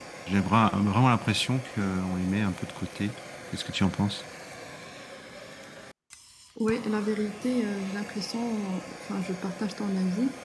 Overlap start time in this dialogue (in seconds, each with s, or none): none